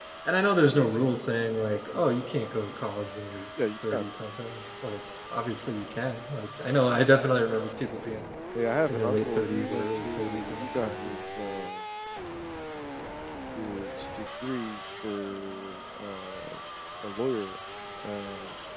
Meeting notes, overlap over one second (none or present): present